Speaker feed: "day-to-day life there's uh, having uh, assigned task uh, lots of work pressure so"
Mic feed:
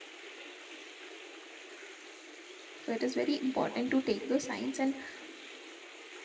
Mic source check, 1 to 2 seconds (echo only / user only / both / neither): neither